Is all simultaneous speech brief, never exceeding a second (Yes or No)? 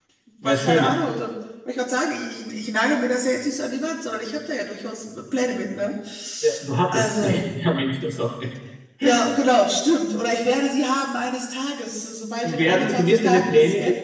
No